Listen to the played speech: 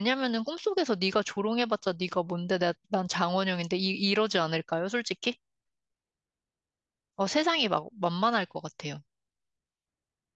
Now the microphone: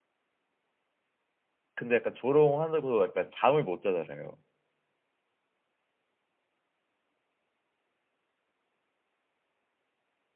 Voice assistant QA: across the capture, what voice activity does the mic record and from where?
user only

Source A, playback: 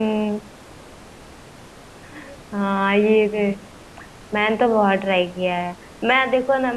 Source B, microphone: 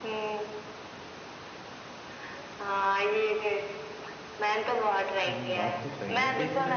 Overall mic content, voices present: both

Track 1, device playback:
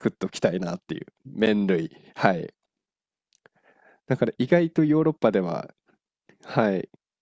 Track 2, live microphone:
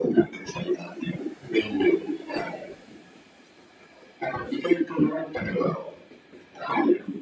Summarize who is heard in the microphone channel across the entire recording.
echo only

